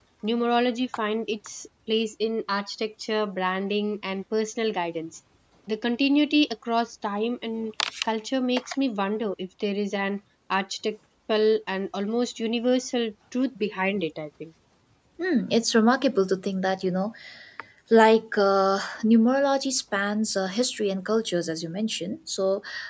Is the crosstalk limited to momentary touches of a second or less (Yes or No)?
Yes